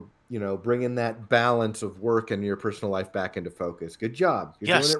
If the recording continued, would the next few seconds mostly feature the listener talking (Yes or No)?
Yes